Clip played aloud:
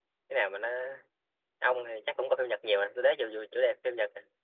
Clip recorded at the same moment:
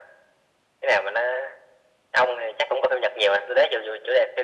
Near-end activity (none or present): none